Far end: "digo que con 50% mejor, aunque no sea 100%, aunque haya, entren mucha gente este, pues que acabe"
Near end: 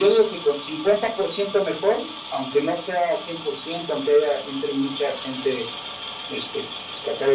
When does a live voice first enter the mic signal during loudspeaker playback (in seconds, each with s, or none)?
none